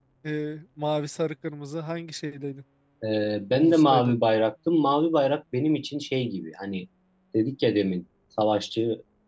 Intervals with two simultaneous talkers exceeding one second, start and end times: none

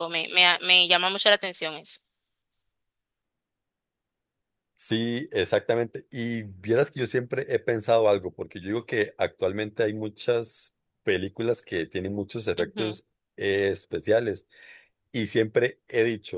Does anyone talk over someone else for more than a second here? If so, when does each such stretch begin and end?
none

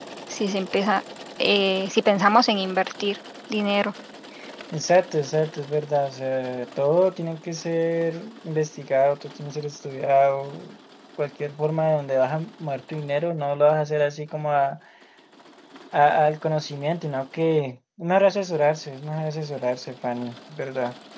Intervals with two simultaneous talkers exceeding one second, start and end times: none

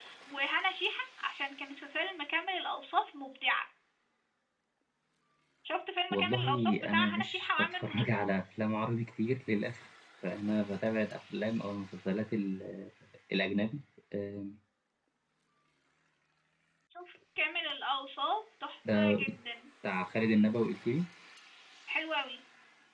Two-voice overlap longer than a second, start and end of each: 6.1-8.0

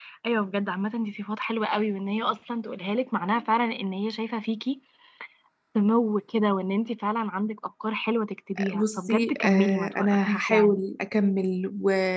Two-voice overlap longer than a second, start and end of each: 8.7-10.8

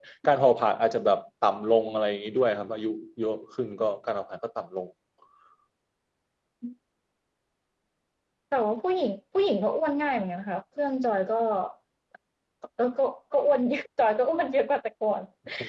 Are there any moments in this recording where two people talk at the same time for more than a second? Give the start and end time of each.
none

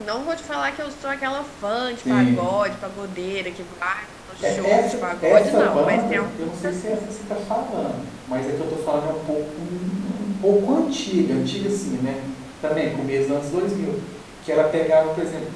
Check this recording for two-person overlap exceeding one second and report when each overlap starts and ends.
4.4-7.0

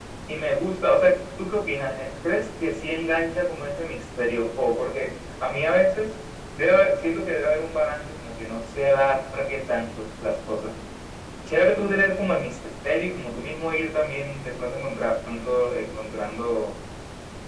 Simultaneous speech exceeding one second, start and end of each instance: none

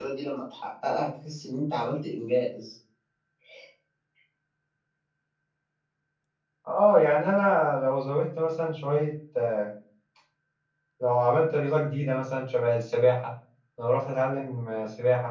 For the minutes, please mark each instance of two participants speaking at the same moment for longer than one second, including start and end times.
none

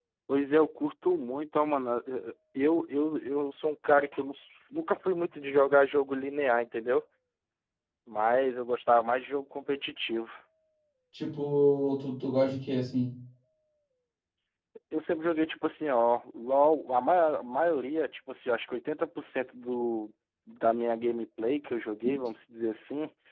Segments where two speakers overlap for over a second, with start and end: none

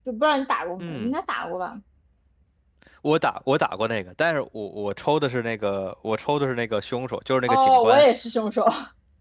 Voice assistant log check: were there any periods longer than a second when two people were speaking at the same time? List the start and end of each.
none

